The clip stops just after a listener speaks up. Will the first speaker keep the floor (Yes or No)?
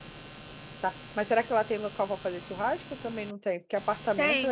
No